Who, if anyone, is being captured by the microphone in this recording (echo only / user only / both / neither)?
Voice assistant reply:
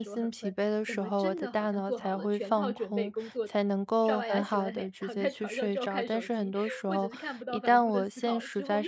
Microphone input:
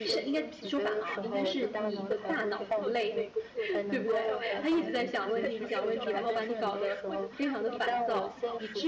both